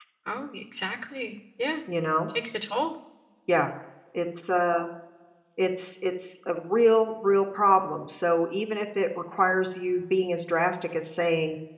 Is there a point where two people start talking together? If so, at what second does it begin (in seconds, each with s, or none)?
none